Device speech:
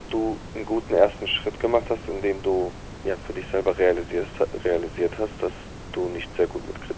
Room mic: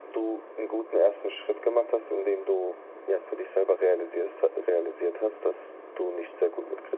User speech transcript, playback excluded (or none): none